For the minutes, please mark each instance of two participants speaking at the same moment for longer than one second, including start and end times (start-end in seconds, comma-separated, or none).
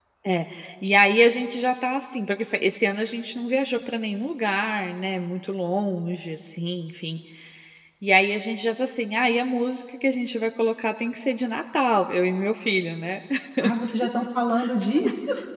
none